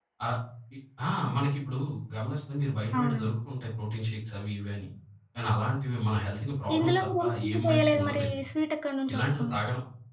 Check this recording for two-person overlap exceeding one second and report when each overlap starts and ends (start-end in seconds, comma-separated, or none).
6.8-8.4